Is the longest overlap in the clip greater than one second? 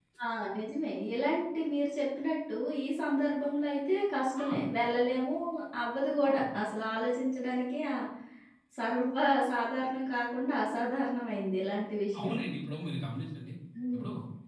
No

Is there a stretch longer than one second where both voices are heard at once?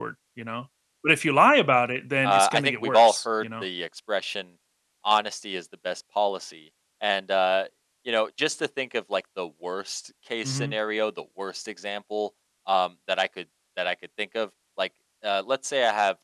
Yes, from 2.2 s

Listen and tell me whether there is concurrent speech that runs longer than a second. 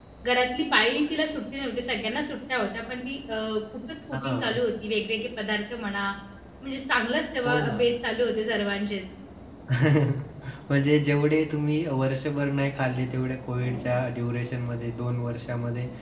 No

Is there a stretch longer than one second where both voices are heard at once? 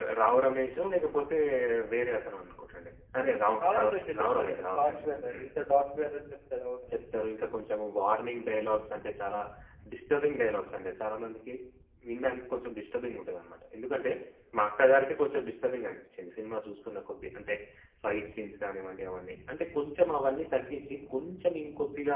Yes, from 3.6 s

